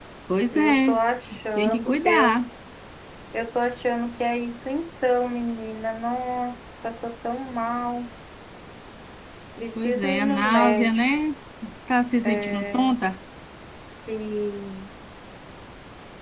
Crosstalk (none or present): present